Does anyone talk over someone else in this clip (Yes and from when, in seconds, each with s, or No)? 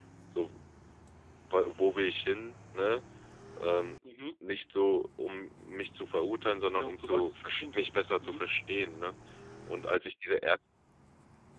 Yes, from 6.7 s